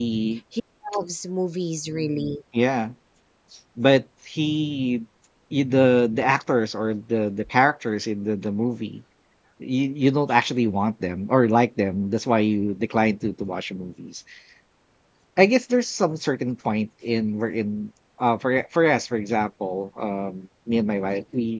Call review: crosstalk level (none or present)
none